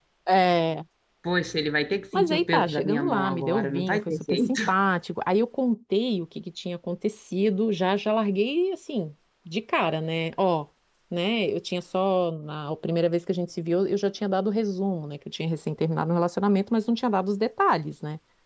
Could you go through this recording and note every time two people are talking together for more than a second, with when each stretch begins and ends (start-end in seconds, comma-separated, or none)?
2.1-4.6